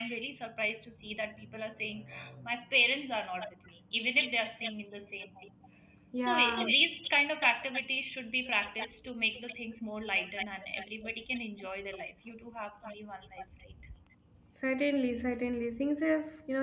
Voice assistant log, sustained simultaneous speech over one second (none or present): none